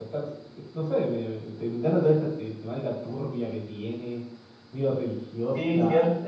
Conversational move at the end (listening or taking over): taking over